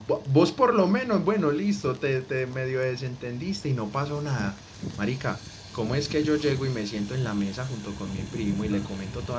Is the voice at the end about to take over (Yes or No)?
No